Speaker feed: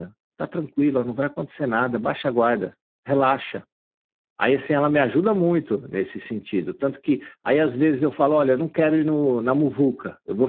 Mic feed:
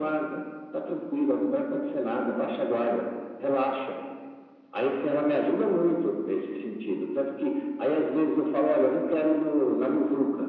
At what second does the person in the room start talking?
none

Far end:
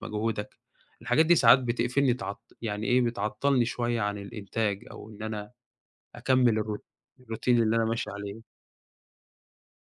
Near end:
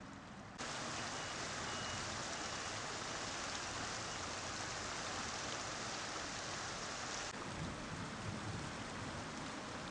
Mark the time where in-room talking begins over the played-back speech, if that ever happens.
none

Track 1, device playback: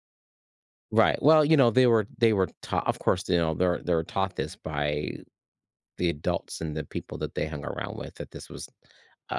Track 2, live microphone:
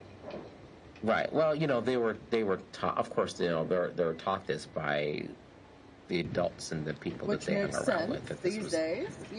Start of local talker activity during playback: 7 s

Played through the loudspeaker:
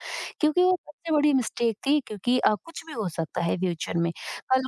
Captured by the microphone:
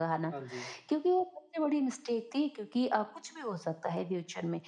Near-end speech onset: 0 s

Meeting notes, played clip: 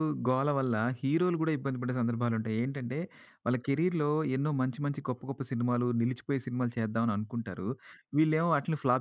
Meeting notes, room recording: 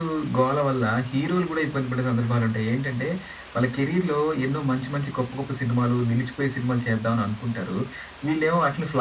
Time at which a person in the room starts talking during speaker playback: none

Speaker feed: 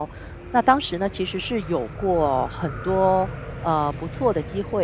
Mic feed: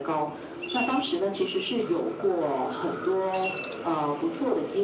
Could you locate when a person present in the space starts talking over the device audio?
none

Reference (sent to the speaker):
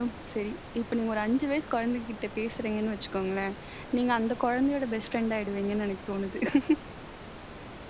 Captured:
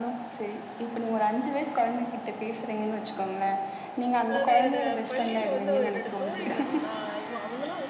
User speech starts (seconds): 4 s

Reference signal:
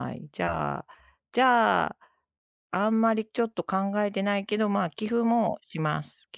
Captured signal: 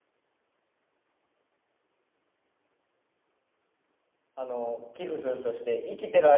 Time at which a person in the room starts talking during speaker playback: 4 s

